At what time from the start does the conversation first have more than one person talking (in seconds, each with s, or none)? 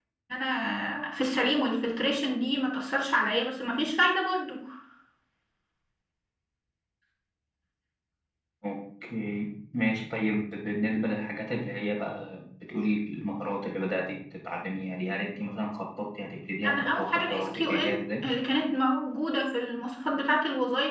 16.6 s